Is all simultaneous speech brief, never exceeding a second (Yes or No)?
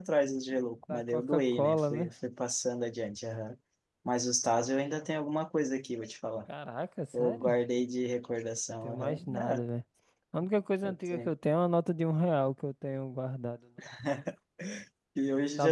No